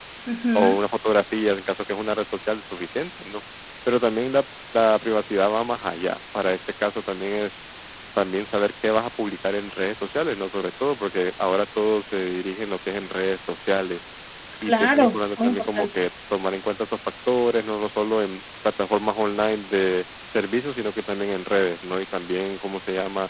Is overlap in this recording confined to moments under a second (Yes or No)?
No